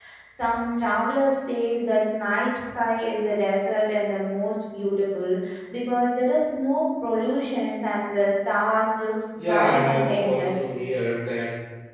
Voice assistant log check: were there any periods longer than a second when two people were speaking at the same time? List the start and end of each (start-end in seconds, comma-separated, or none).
9.3-10.7